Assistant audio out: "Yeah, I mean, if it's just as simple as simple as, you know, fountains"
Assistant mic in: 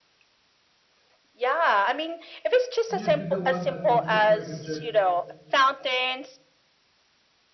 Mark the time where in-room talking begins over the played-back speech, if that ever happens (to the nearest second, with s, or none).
3 s